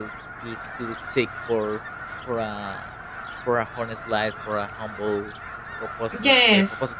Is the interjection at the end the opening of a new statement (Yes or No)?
No